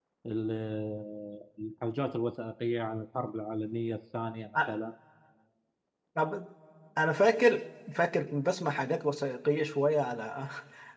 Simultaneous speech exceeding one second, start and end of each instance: none

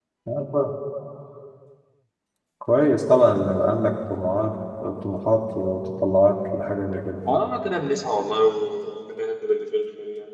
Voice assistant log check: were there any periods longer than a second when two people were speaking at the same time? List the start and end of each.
none

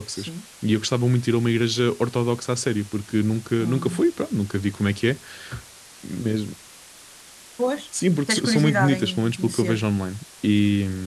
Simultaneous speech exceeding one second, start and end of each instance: 8.3-9.8

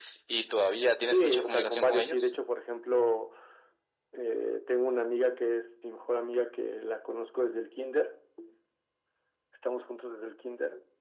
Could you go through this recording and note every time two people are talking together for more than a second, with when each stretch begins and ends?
1.1-2.4

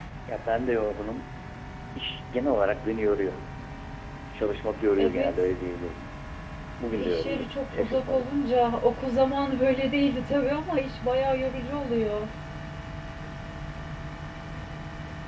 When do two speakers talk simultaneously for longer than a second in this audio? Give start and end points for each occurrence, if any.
6.9-8.3

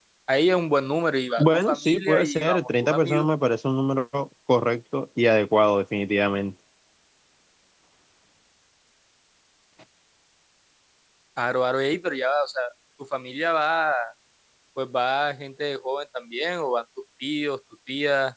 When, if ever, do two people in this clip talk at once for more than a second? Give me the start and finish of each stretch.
1.4-3.3

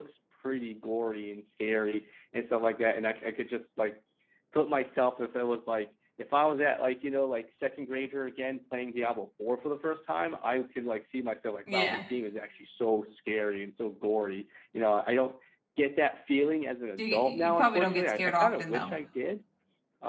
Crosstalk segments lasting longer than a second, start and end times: 17.0-18.9

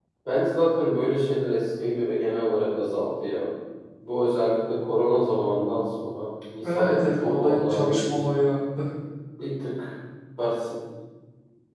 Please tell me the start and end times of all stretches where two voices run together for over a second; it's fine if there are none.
6.8-8.4

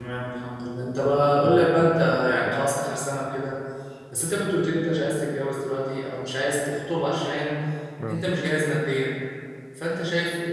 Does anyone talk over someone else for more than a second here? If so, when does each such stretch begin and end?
1.5-2.7

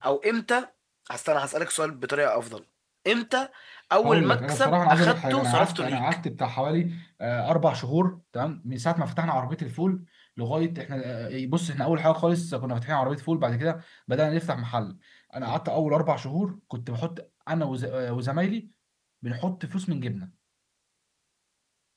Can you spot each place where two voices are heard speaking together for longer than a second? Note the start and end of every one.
4.0-6.0

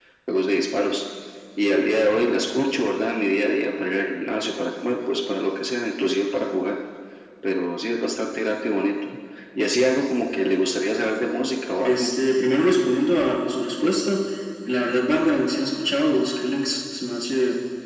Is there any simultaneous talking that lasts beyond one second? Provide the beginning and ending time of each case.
none

